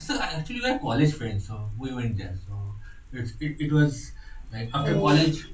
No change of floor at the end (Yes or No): No